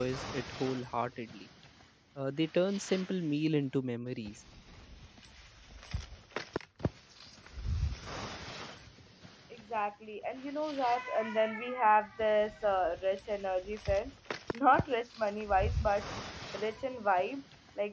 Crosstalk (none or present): none